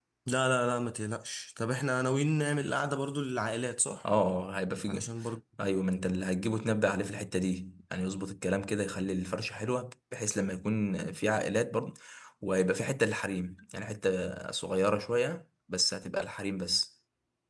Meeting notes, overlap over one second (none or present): none